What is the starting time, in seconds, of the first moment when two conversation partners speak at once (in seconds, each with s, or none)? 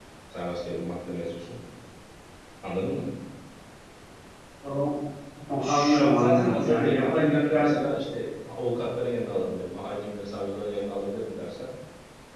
5.6 s